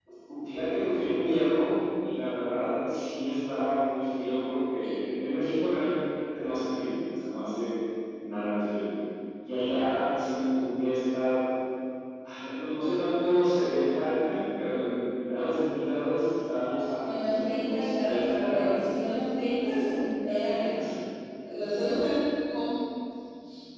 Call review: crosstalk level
present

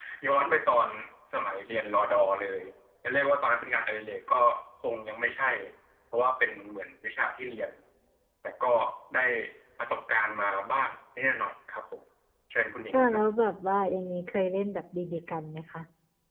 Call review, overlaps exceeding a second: none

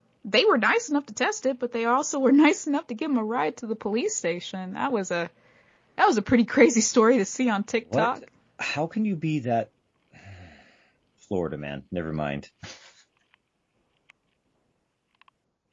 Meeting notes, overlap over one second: none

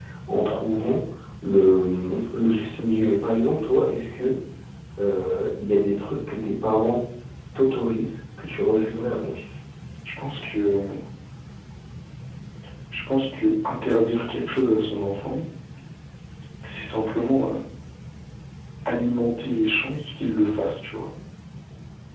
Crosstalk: none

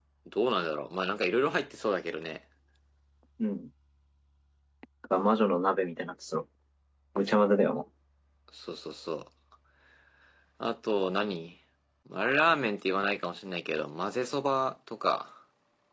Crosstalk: none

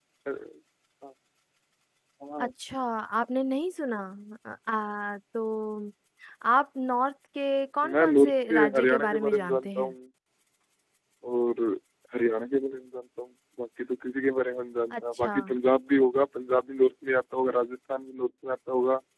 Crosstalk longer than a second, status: present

